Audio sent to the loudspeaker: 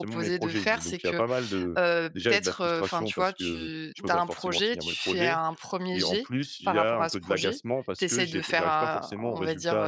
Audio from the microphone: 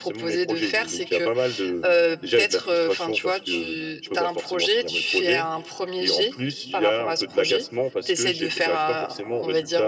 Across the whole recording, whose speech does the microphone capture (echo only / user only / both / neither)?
echo only